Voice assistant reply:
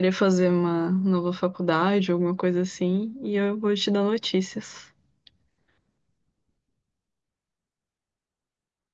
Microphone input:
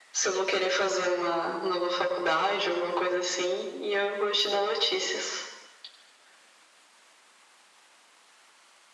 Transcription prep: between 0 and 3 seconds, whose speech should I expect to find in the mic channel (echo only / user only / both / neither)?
echo only